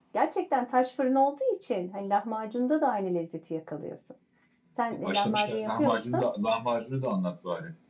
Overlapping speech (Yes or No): Yes